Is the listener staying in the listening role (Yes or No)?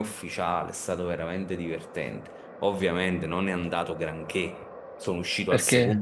Yes